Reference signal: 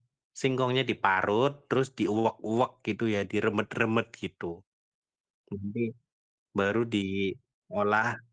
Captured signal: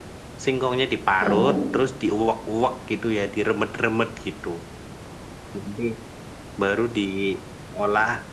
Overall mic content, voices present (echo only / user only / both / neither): both